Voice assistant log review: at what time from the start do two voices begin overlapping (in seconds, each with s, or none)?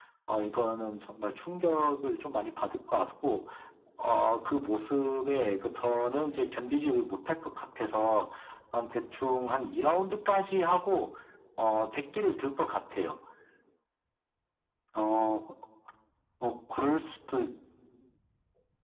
none